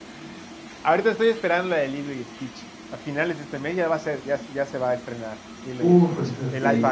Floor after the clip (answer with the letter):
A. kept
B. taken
B